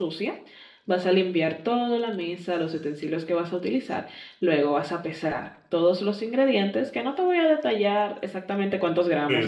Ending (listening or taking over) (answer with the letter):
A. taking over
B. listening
A